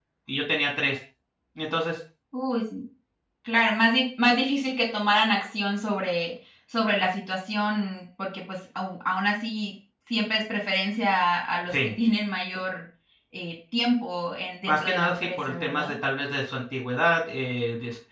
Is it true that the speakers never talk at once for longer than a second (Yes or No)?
No